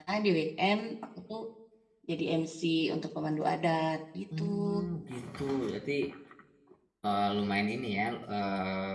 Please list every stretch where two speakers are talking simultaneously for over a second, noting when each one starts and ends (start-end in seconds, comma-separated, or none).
none